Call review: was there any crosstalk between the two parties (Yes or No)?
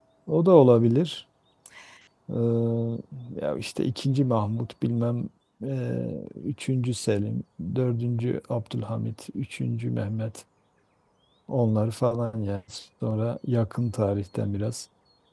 No